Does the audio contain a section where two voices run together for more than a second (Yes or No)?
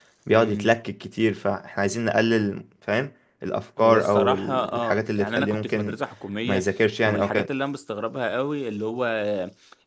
Yes